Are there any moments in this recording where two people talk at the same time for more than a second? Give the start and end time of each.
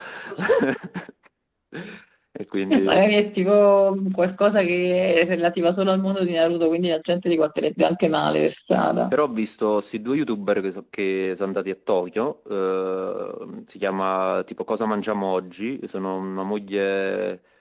none

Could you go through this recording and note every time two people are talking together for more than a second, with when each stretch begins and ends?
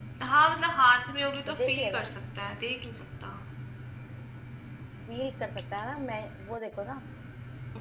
none

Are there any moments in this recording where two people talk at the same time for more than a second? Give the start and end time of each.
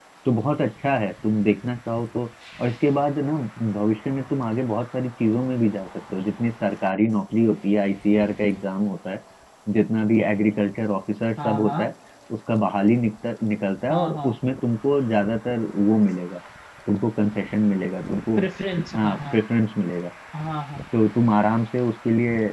none

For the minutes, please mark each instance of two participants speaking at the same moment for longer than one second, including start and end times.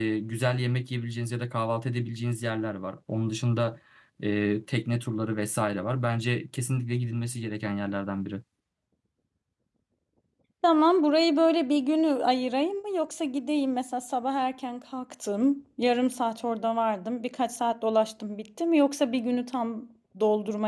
none

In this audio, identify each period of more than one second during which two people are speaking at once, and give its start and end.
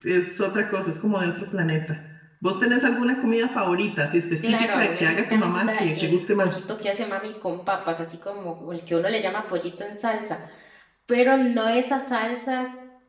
4.4-6.6

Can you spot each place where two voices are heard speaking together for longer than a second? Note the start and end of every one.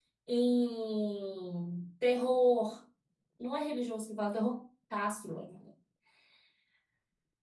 none

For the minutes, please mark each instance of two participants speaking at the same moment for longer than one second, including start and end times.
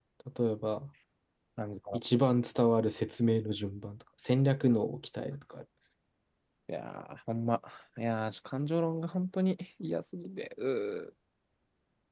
none

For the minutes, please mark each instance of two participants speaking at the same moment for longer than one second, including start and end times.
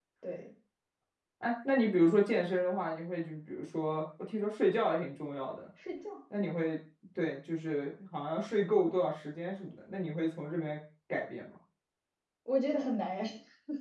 none

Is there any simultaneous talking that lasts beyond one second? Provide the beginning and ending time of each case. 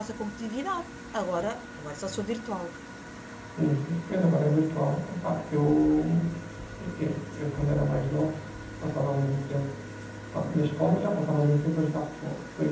none

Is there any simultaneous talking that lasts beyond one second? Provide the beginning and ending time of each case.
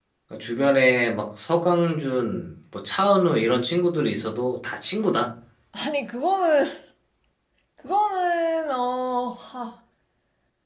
none

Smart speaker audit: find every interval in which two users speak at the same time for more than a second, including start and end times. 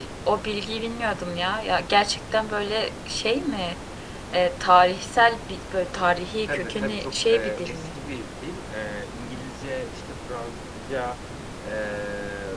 6.5-7.9

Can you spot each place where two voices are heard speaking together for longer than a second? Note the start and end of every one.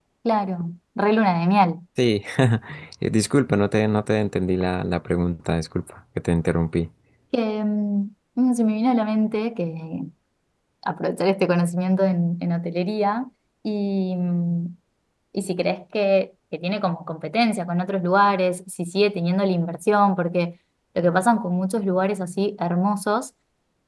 none

